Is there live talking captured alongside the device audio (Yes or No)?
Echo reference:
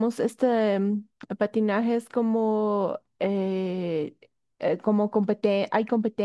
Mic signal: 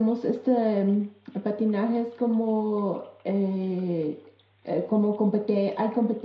No